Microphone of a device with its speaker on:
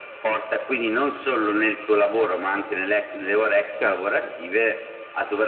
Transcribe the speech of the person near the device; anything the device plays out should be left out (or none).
certo, sì, sì.